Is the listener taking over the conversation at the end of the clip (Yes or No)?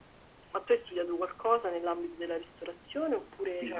Yes